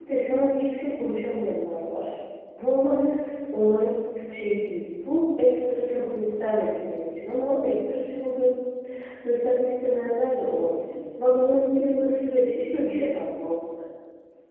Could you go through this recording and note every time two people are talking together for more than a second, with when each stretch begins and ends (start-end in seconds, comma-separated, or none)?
none